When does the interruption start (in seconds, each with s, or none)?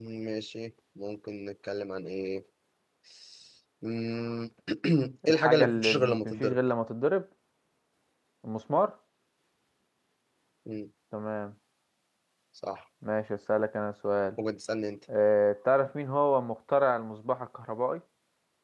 5.3 s